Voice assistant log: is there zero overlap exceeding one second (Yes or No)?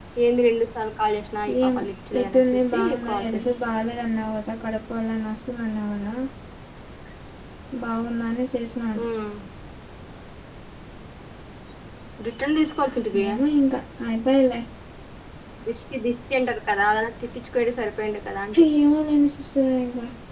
No